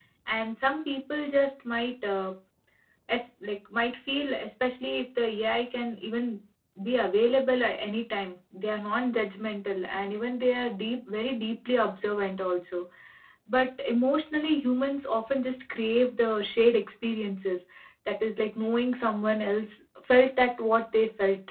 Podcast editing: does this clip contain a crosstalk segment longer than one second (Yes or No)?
No